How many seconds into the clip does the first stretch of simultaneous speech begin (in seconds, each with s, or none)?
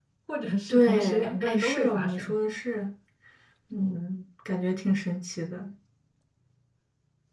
0.7 s